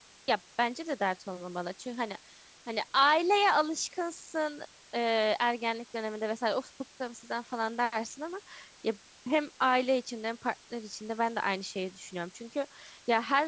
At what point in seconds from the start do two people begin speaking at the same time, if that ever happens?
none

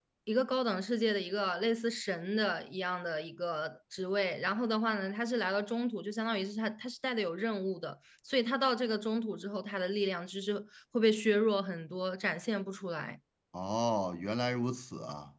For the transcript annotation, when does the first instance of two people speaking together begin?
none

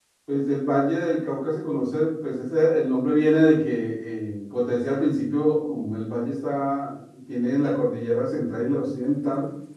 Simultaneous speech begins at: none

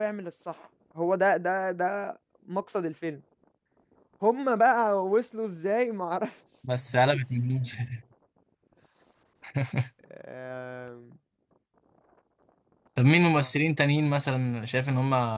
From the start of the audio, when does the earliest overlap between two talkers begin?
none

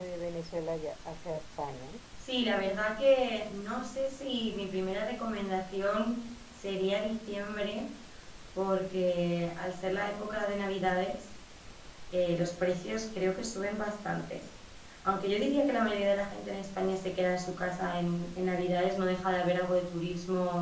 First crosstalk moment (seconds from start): none

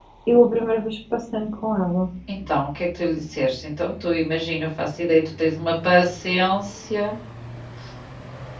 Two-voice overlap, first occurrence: none

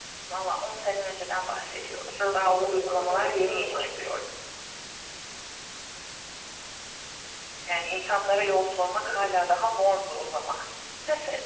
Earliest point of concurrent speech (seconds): 2.2 s

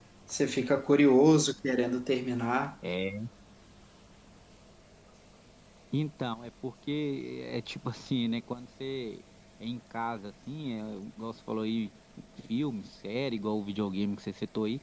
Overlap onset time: none

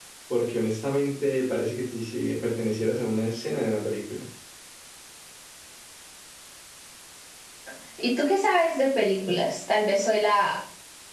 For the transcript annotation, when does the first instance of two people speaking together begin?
none

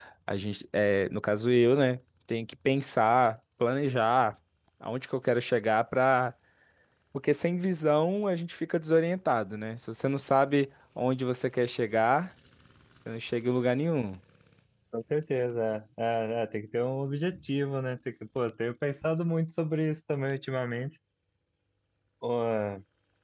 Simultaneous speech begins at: none

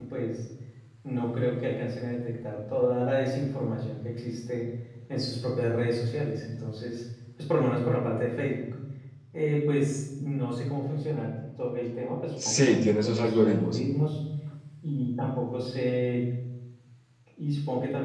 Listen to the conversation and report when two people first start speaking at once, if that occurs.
12.4 s

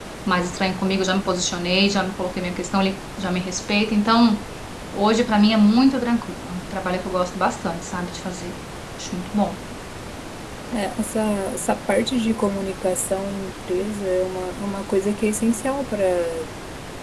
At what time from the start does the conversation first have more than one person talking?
none

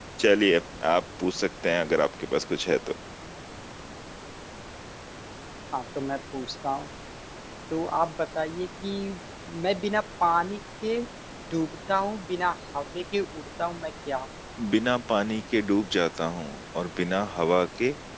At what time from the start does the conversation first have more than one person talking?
none

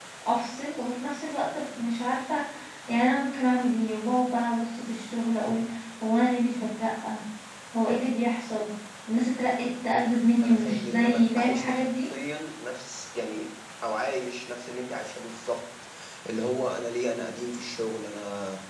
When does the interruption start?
10.4 s

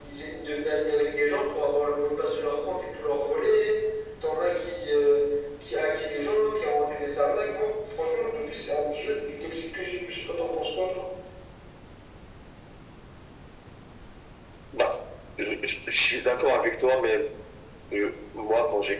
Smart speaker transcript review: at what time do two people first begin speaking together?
none

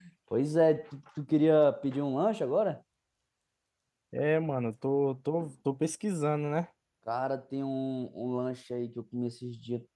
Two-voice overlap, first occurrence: none

